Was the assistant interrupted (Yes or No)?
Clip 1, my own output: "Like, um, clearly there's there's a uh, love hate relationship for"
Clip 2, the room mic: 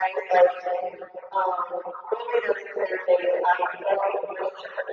No